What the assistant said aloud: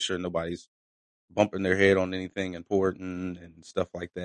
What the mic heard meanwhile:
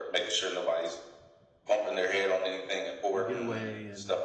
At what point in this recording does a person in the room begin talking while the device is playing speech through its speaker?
3.1 s

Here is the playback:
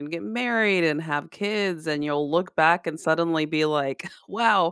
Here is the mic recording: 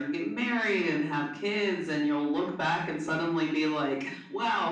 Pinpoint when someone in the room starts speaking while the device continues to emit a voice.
none

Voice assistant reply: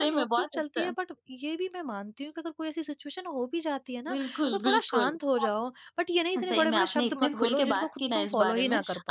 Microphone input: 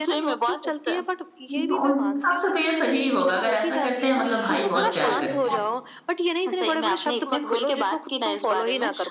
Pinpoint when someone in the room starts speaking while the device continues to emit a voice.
1.5 s

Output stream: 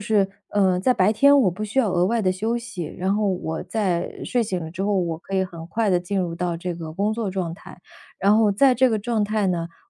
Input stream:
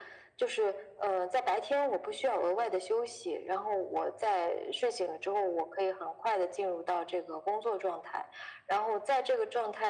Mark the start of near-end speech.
none

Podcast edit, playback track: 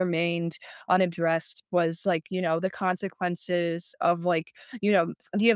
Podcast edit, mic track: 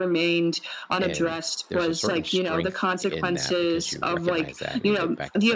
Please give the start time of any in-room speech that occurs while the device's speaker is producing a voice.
1.0 s

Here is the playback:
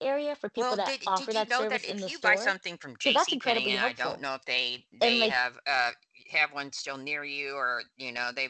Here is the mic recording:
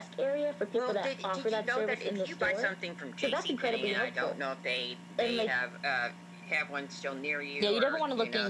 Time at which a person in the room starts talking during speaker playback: 7.6 s

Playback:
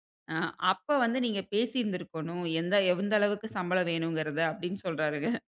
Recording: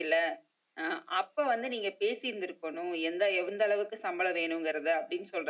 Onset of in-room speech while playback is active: none

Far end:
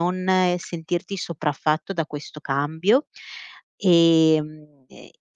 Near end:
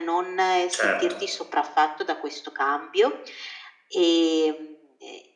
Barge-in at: 0.7 s

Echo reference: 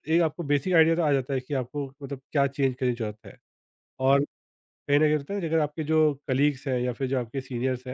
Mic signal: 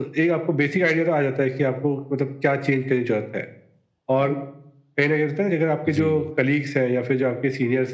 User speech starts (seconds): 5.9 s

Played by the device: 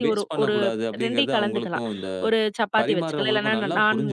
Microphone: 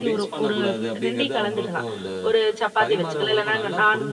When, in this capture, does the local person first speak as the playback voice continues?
none

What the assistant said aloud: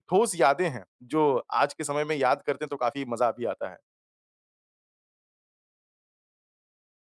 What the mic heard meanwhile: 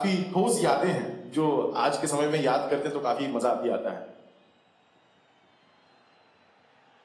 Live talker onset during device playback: none

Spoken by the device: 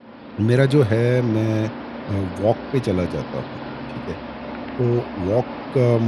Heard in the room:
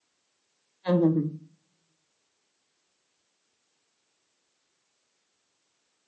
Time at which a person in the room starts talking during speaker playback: 0.9 s

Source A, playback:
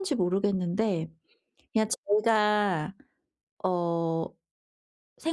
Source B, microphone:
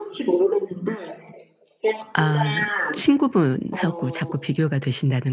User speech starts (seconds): 2.1 s

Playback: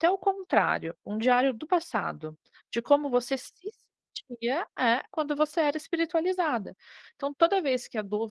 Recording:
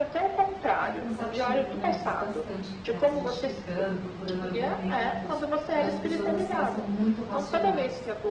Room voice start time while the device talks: 0.8 s

